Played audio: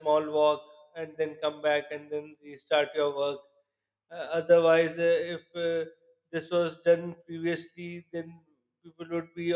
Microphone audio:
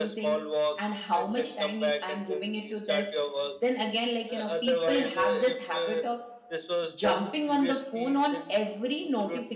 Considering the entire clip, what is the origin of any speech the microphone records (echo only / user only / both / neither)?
both